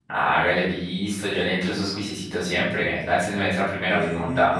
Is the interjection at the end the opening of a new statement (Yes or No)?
Yes